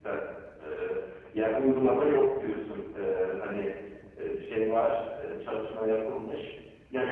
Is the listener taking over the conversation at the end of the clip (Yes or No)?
No